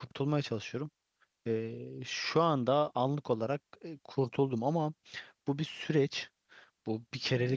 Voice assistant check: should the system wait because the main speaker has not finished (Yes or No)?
Yes